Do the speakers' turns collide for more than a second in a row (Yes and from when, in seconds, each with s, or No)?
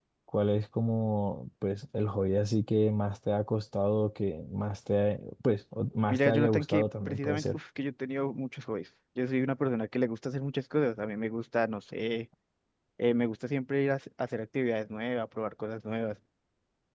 Yes, from 6.1 s